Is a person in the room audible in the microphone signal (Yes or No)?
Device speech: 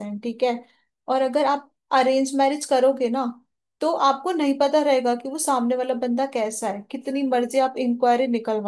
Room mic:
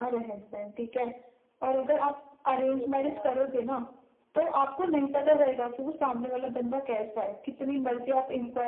Yes